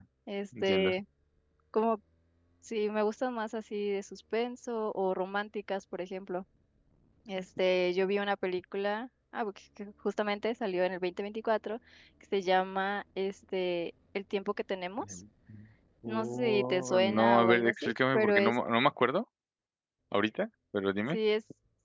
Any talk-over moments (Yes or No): Yes